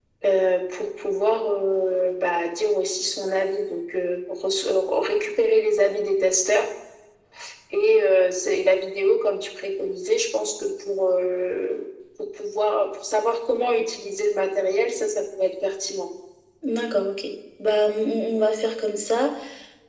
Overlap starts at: none

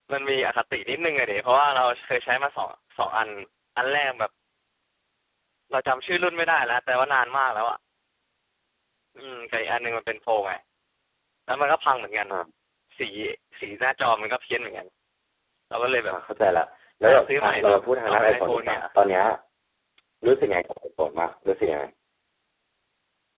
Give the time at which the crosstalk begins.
17 s

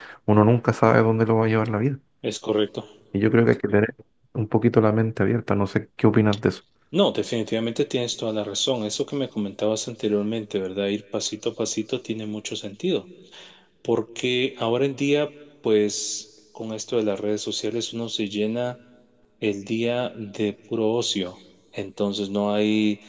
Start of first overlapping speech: none

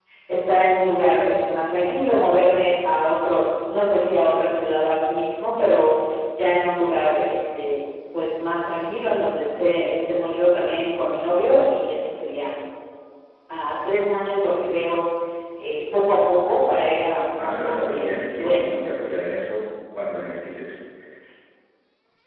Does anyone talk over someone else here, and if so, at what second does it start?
17 s

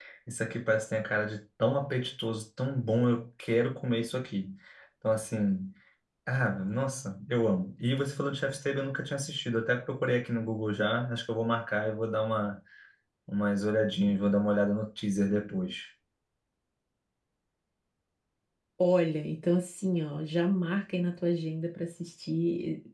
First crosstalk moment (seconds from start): none

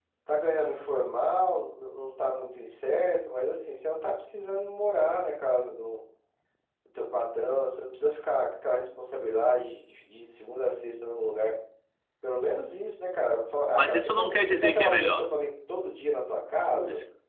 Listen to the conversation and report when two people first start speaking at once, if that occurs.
14 s

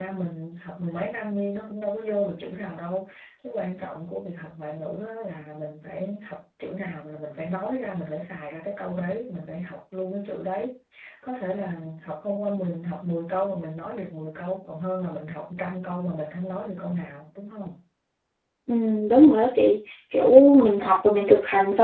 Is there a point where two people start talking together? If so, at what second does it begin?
none

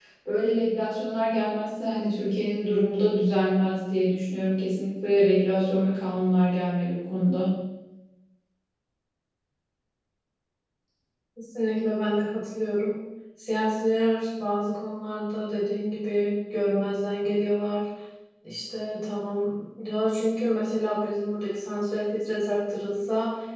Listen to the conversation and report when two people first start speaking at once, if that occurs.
none

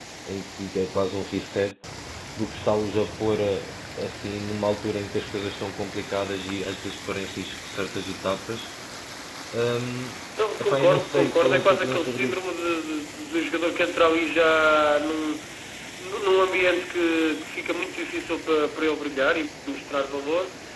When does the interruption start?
11 s

